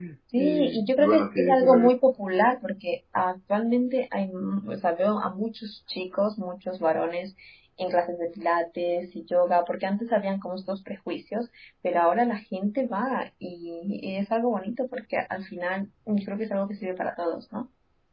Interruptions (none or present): present